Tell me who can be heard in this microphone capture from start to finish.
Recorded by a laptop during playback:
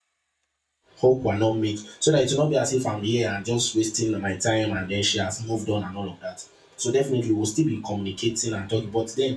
user only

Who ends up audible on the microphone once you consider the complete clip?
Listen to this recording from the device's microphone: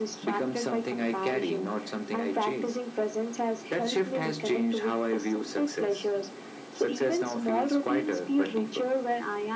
echo only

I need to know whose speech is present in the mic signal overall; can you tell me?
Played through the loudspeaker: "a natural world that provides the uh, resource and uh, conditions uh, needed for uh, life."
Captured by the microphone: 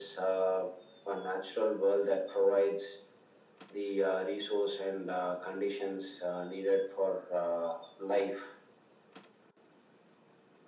echo only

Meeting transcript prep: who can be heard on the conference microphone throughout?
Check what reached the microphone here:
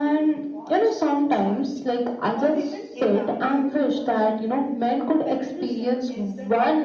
both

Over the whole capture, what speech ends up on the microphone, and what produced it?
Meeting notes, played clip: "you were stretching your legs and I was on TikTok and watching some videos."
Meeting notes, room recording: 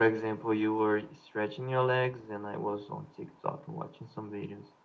echo only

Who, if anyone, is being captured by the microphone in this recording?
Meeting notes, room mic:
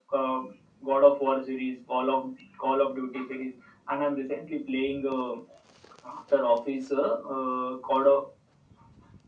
echo only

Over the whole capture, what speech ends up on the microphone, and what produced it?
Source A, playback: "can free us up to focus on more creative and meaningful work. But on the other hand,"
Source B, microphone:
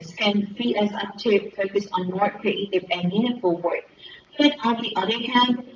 echo only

